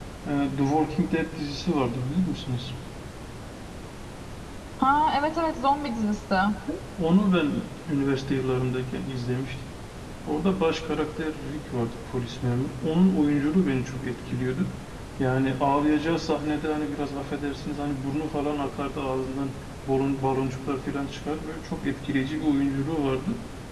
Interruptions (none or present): none